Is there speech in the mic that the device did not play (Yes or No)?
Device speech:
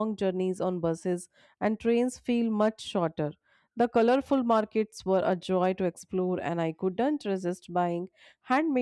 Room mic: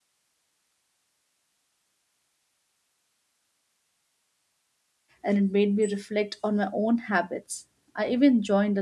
Yes